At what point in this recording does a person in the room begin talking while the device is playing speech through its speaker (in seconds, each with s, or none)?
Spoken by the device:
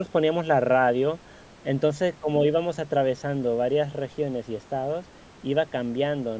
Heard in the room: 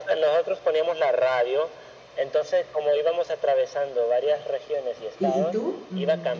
5.1 s